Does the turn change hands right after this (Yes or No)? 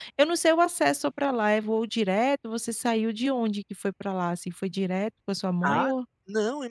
Yes